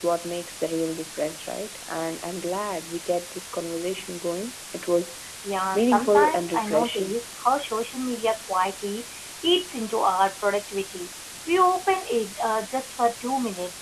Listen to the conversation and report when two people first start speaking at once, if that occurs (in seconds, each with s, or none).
5.7 s